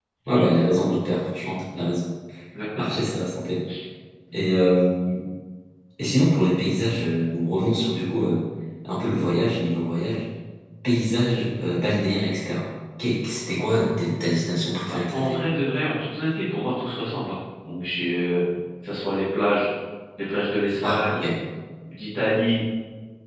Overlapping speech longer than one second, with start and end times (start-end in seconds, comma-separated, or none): none